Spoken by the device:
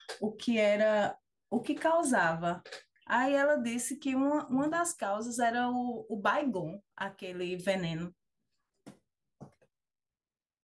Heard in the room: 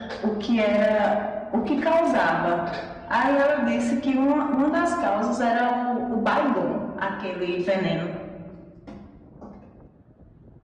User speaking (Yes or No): No